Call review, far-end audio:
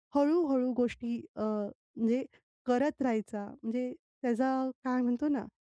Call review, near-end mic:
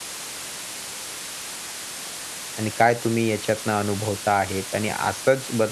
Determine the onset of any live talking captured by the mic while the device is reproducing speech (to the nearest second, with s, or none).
3 s